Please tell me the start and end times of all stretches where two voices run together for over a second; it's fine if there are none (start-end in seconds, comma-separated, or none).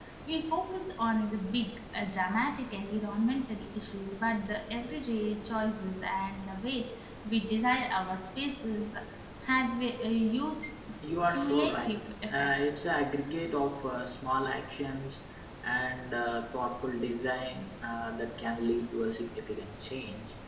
11.3-12.5